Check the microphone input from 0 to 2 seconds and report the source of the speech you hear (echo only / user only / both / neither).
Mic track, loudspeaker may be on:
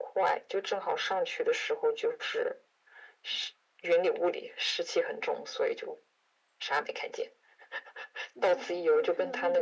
echo only